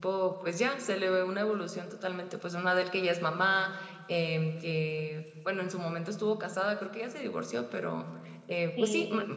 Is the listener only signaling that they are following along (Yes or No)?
Yes